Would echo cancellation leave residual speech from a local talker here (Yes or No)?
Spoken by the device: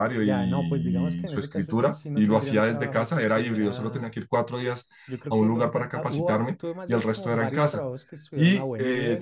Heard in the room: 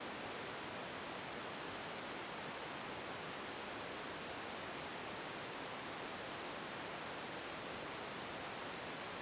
No